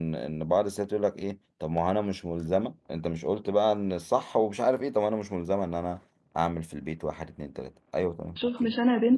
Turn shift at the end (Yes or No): Yes